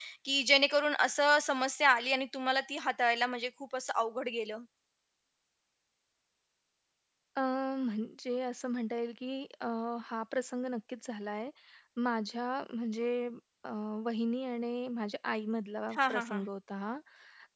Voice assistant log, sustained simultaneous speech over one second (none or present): none